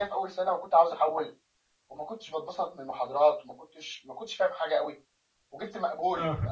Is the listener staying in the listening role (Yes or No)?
Yes